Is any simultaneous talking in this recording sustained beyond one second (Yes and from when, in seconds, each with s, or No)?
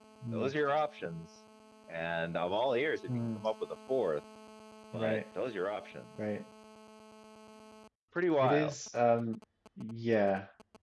No